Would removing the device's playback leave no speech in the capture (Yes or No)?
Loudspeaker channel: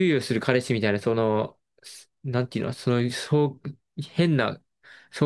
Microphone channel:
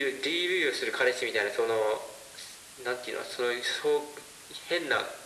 Yes